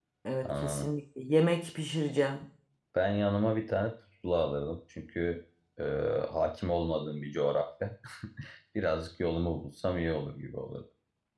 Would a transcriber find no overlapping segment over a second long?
Yes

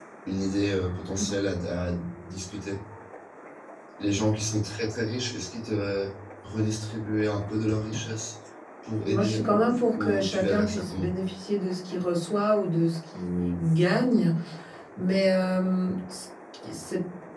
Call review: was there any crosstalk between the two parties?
Yes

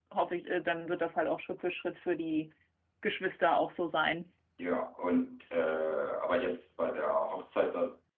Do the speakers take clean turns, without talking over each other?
Yes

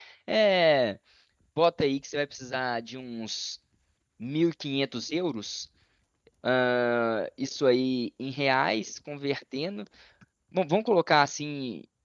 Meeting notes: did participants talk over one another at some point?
No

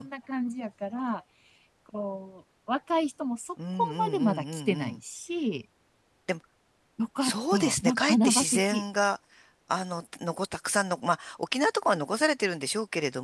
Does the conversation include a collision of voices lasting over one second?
Yes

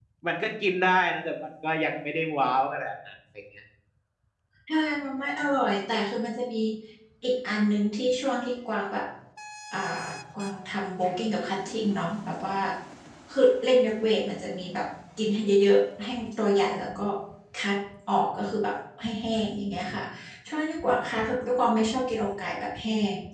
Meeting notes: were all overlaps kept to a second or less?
Yes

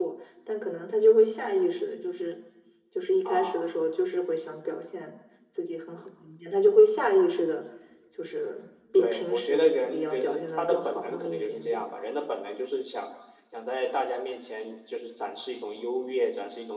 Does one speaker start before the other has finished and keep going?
Yes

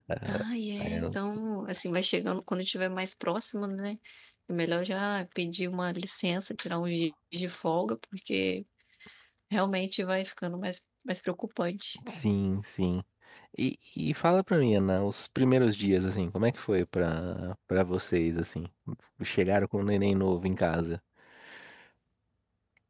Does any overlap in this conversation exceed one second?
No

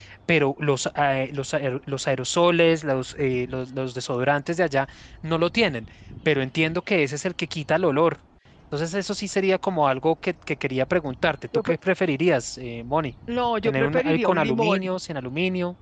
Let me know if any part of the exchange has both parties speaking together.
Yes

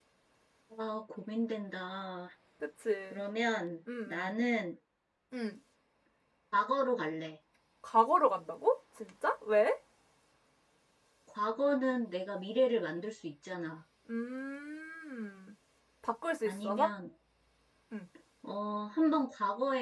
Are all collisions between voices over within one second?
Yes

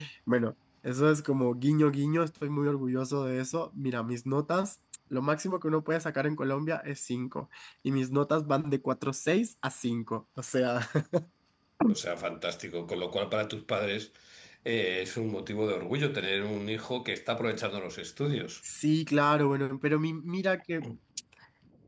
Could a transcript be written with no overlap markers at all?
Yes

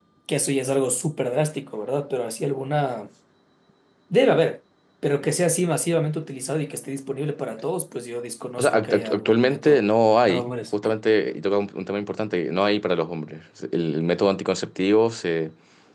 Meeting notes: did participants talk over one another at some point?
Yes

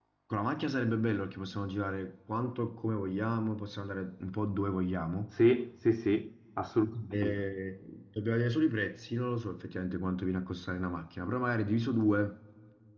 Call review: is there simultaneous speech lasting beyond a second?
No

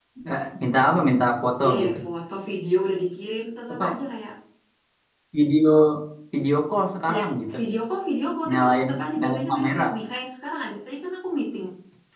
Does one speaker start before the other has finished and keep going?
Yes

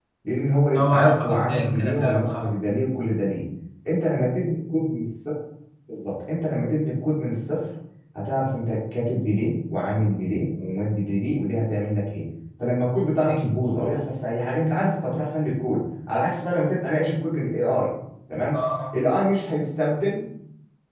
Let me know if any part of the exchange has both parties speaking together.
Yes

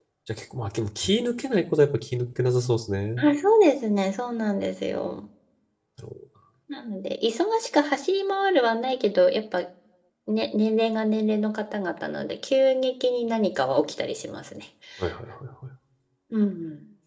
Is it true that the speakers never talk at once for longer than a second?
Yes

